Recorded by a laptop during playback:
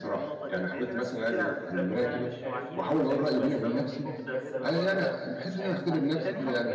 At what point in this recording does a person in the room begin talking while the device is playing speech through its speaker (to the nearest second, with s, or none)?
2 s